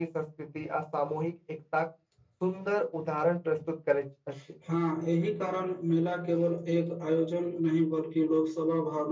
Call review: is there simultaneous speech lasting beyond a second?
No

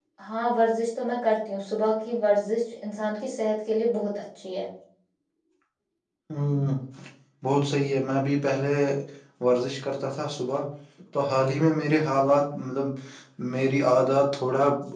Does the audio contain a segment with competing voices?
No

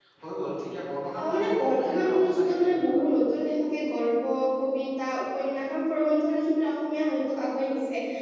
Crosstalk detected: Yes, from 1.2 s

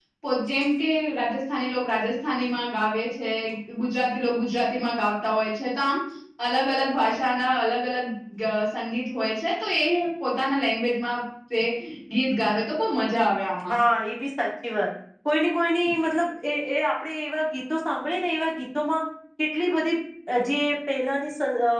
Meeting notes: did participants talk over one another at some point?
No

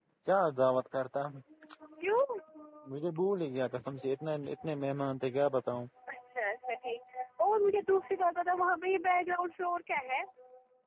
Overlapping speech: No

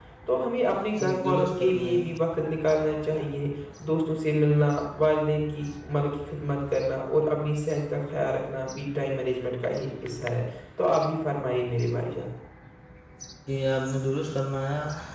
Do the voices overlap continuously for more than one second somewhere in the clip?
Yes, from 0.7 s

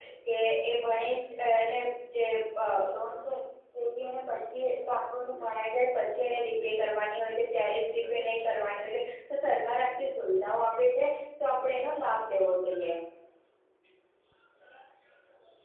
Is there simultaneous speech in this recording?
No

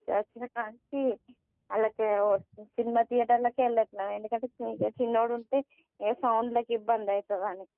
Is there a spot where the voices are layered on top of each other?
No

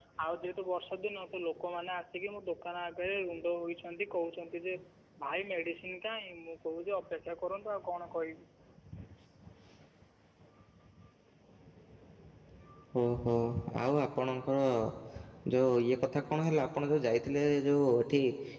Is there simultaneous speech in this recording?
No

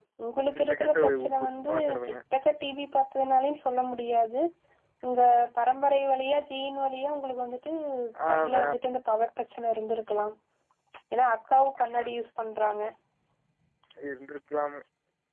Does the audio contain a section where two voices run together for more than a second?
Yes, from 0.7 s

